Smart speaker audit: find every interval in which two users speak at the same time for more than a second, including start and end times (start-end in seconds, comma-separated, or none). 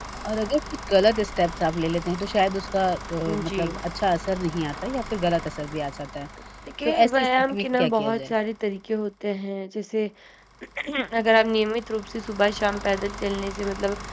6.8-8.3